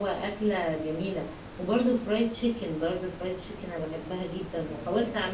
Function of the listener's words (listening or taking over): taking over